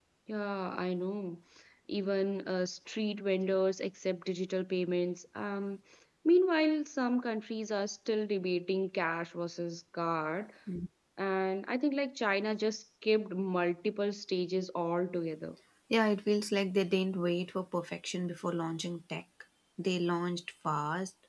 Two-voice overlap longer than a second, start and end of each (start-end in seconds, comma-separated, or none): none